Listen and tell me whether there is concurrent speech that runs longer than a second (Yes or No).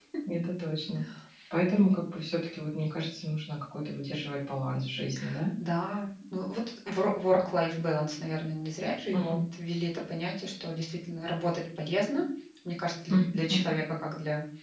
No